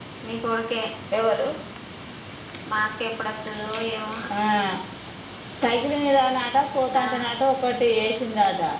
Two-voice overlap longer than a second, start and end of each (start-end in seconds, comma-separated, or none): none